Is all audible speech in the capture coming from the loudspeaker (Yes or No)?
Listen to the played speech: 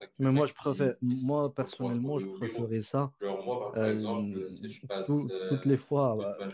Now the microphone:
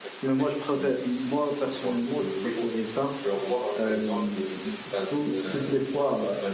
Yes